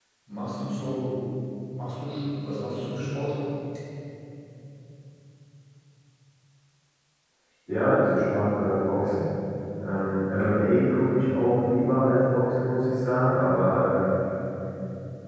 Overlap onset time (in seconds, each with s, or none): none